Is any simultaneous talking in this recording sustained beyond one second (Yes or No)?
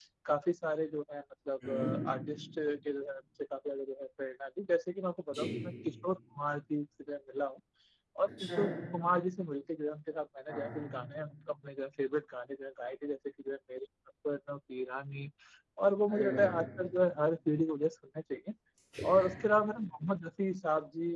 No